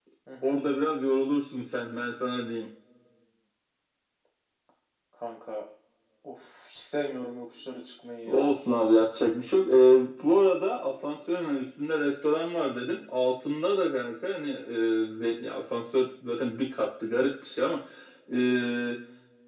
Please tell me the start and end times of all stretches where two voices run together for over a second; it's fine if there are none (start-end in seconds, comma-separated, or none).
none